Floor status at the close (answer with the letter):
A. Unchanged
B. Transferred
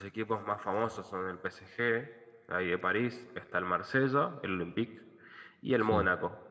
A